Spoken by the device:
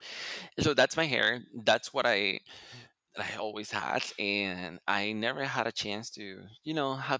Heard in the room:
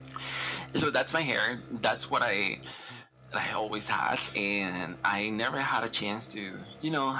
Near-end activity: none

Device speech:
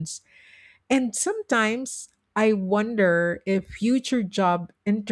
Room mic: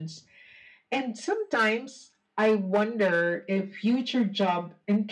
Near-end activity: none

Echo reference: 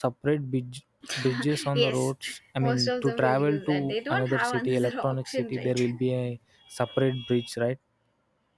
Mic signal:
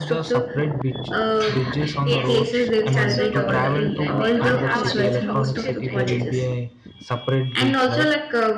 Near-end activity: present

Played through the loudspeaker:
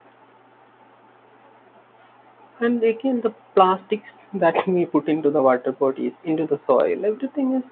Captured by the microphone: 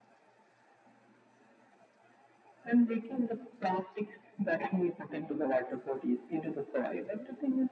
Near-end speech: none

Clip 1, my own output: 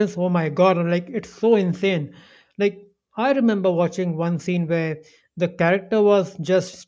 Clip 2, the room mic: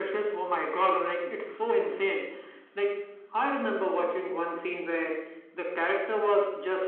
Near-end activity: none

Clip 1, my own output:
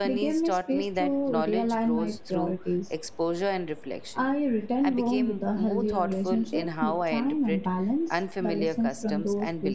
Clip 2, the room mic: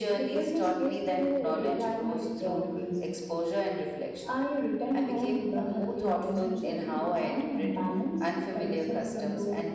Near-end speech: none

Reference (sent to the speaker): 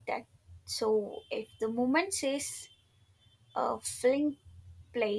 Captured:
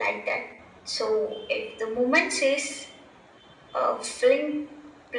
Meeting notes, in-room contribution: none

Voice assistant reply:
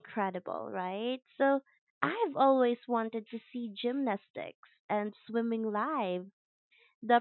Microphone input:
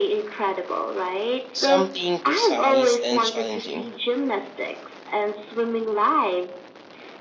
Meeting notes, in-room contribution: present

